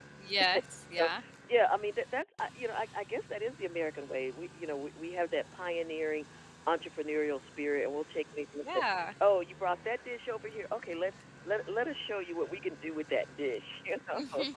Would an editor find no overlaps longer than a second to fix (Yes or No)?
Yes